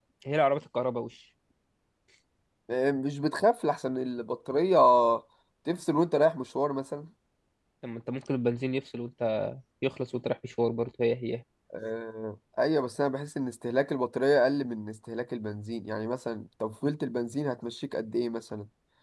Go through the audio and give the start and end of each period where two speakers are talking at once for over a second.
none

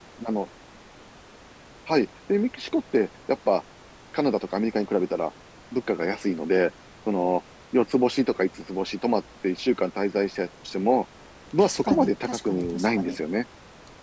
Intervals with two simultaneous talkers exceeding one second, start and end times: 11.6-13.2

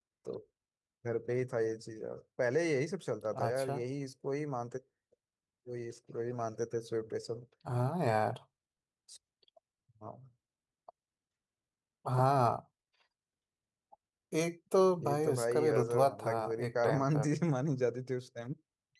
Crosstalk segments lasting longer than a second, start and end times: 15.0-17.3

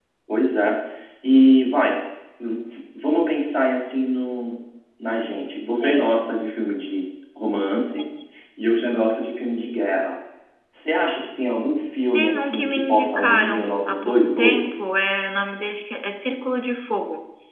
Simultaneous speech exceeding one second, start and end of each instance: 12.1-14.9

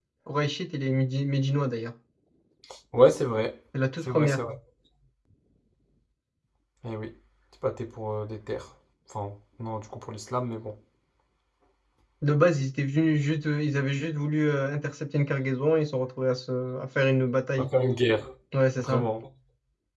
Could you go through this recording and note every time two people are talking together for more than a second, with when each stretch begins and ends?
none

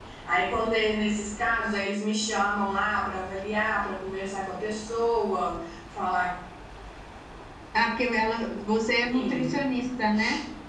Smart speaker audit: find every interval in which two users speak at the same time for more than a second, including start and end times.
none

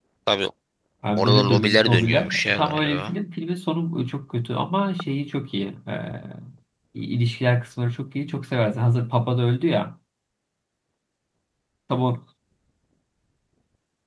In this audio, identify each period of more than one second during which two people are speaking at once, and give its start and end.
1.2-3.2

